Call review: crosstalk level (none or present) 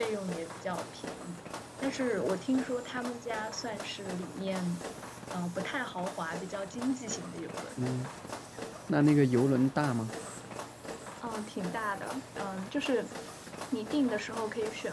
none